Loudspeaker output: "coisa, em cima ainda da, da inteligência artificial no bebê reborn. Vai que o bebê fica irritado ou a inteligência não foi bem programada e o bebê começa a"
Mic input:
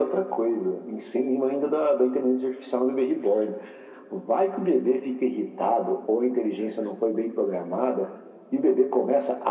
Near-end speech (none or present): none